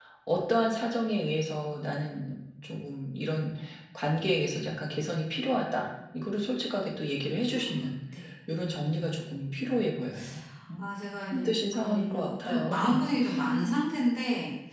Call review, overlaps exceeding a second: present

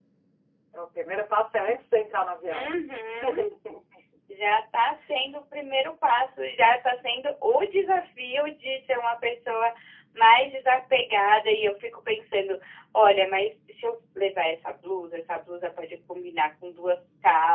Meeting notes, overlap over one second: none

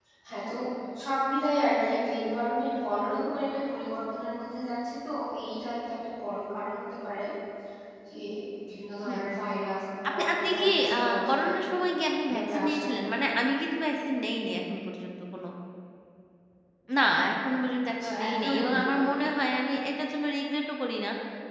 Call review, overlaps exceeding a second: present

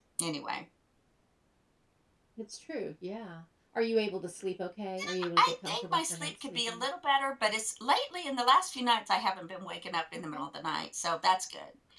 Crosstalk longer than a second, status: present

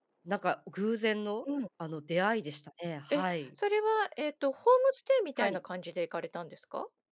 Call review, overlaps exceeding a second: none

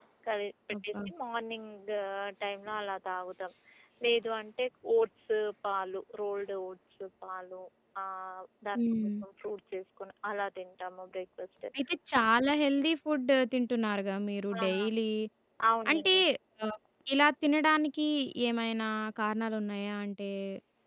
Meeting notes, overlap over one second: none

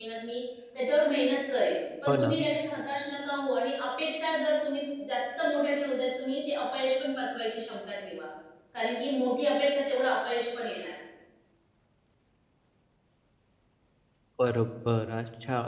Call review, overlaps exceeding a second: none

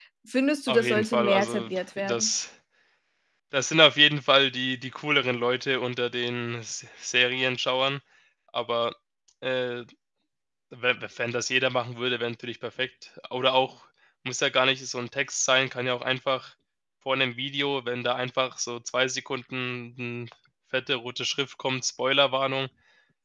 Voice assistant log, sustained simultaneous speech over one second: present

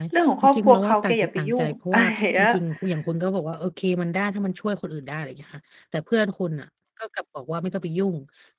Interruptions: present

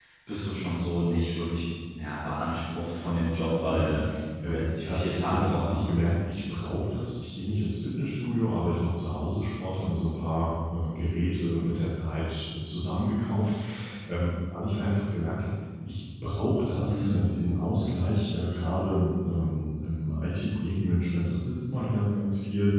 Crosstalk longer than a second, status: present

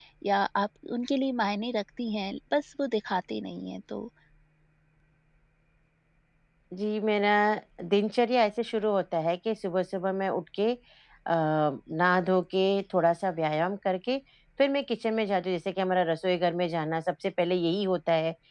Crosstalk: none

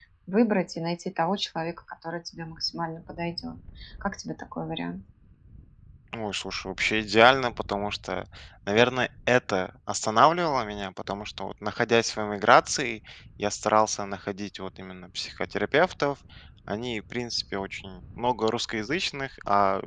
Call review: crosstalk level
none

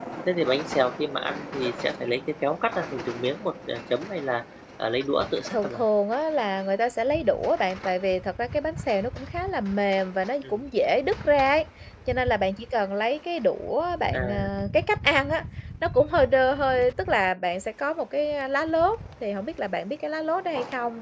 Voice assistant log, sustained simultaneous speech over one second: none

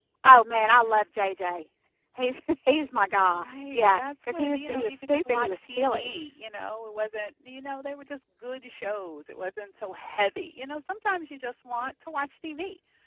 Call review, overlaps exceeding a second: present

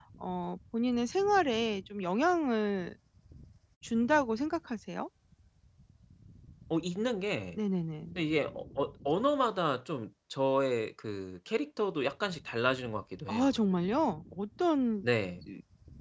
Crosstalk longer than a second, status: none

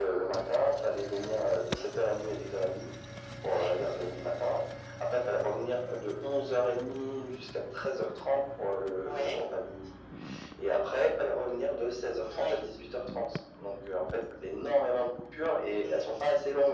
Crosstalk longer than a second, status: none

